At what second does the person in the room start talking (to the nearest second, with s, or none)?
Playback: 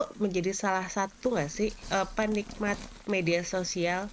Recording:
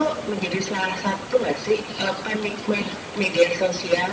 none